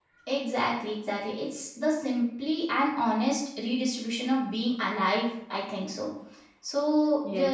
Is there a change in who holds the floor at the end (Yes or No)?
No